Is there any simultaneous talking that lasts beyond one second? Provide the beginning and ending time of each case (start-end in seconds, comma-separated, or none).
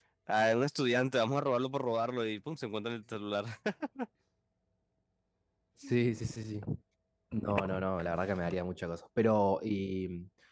none